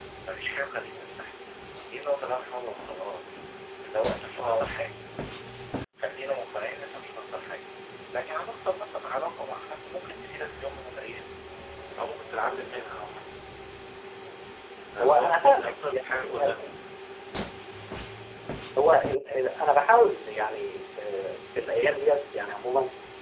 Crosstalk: present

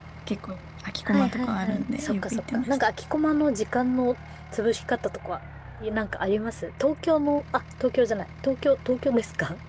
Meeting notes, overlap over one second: present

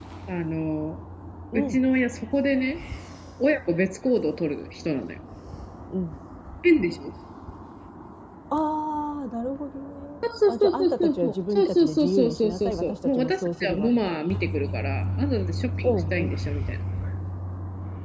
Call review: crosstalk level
present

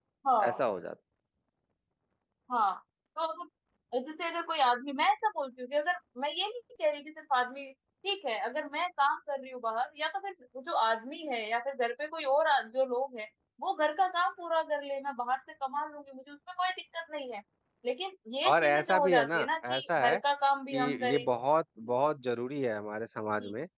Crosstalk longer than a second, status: present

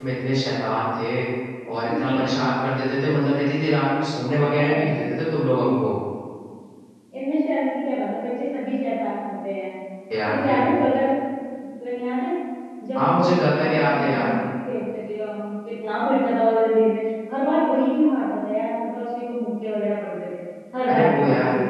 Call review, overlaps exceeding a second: present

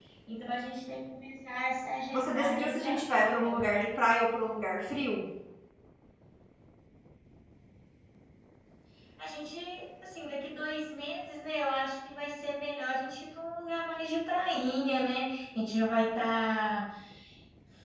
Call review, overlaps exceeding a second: present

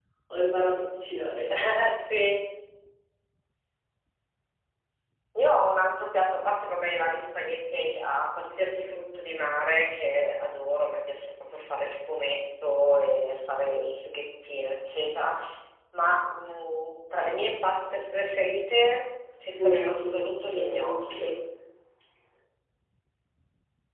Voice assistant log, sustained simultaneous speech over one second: present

